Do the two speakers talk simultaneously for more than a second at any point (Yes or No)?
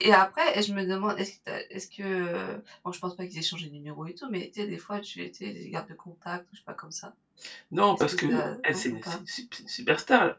Yes